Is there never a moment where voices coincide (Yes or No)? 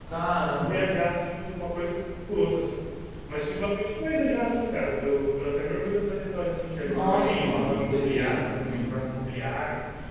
No